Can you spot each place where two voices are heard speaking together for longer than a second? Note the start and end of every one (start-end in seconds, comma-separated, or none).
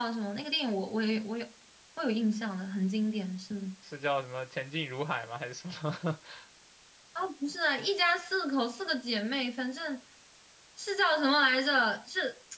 none